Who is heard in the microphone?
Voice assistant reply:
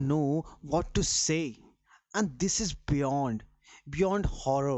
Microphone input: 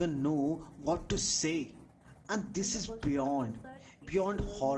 both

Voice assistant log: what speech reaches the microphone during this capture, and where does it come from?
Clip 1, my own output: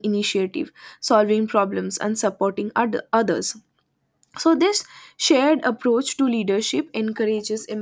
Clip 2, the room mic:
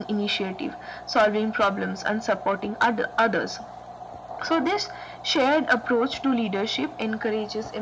echo only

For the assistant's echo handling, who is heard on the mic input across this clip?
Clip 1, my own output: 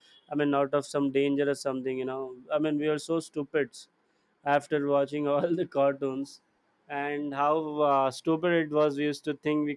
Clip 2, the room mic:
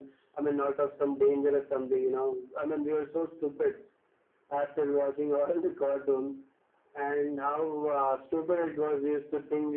echo only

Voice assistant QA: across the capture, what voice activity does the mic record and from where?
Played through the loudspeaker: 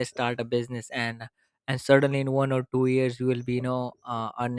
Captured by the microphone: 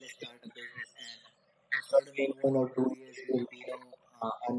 echo only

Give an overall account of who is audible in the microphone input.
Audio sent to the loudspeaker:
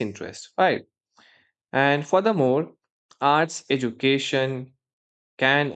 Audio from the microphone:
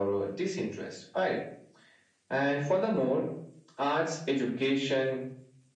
echo only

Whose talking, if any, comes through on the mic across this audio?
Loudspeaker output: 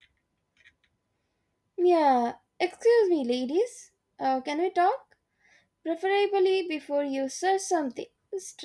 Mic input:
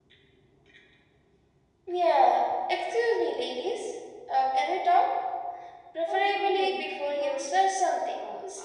both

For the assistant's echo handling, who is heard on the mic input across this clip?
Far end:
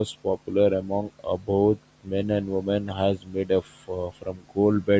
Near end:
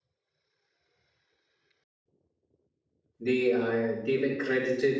user only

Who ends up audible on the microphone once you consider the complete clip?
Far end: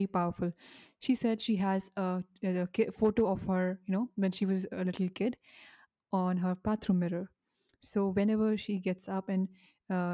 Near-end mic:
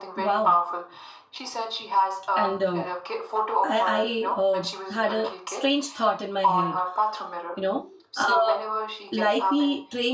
both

